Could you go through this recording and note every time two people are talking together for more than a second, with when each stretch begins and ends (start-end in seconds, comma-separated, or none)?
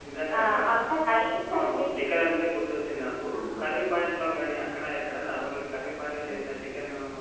none